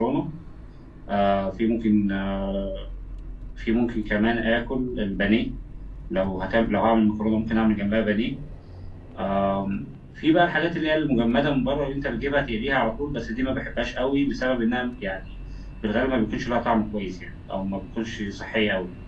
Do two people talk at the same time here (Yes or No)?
No